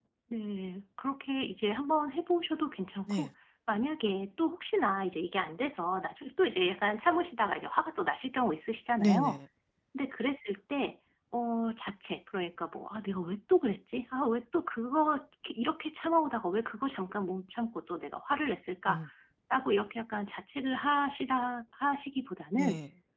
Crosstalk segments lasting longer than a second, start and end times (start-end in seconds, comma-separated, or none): none